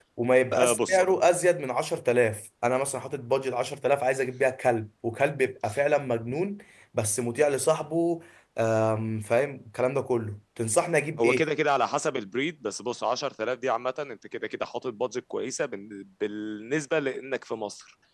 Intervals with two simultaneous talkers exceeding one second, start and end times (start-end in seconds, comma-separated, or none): none